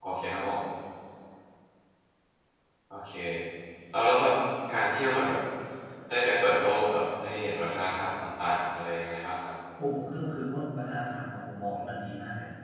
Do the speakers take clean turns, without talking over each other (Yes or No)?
Yes